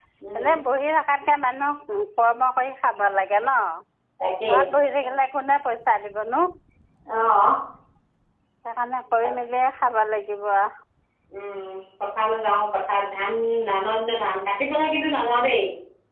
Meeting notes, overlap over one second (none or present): none